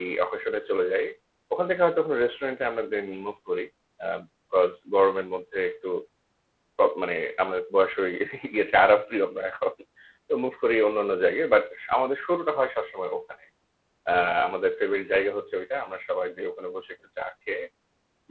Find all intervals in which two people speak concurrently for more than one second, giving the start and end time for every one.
none

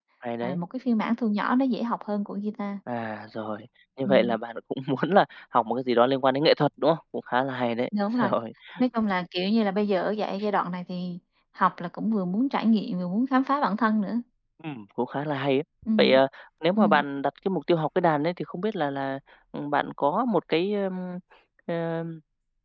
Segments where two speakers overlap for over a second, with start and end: none

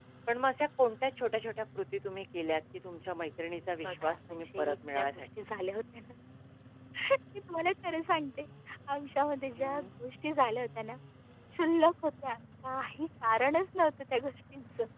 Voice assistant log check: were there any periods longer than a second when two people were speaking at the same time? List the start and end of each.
3.8-5.3

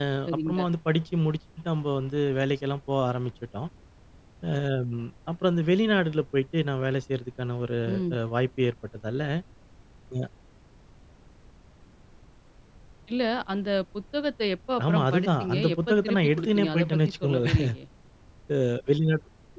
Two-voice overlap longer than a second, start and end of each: 14.9-17.6

